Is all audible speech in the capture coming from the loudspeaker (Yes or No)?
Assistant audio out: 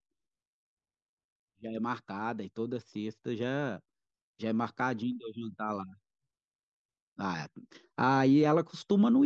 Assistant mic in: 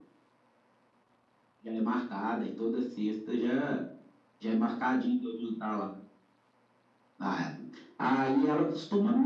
Yes